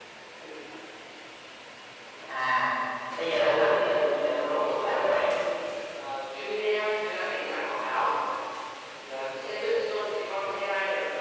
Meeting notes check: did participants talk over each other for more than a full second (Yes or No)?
Yes